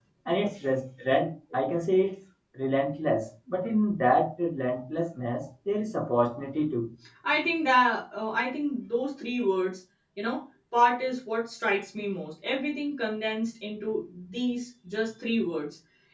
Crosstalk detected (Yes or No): No